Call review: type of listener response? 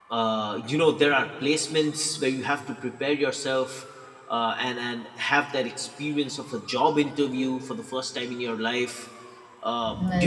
listening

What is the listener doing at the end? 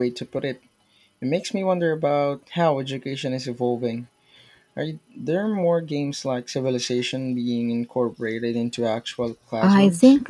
taking over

